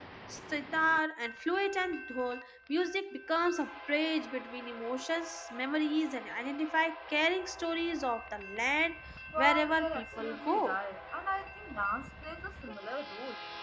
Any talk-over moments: Yes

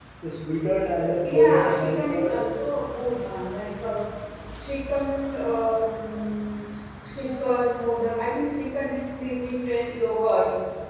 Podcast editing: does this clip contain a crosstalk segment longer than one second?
Yes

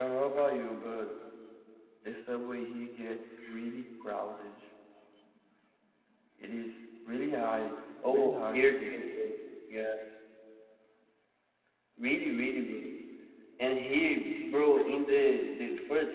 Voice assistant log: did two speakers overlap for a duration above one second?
Yes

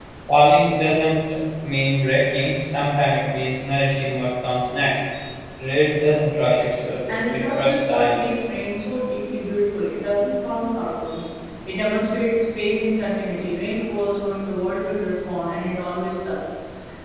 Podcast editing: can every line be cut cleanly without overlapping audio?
No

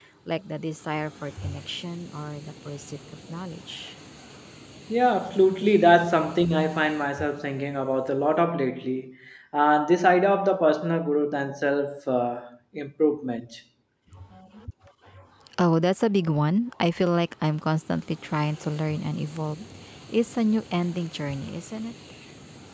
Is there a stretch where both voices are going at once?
No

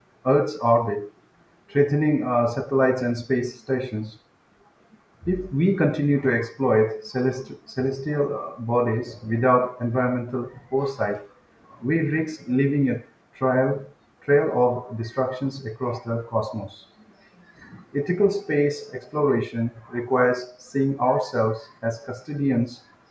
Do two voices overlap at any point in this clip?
No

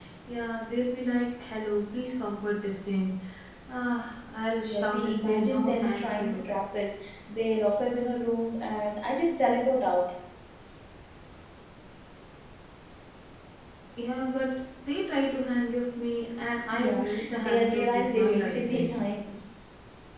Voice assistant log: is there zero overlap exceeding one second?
No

